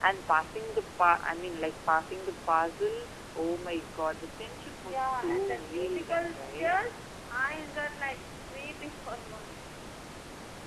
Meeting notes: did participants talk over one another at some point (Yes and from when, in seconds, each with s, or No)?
Yes, from 4.8 s